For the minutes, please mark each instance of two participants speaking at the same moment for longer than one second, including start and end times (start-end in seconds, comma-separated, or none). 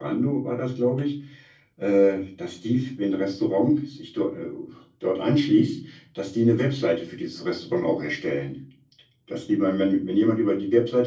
none